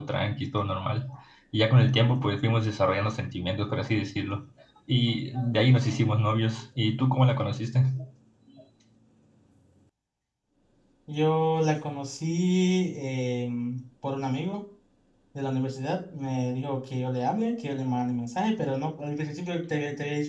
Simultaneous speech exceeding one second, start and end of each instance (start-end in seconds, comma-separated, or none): none